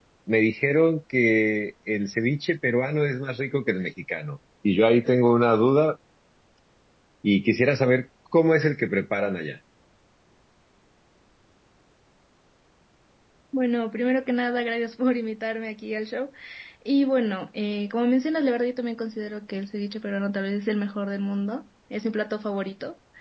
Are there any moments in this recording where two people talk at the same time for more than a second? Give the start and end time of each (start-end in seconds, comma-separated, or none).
none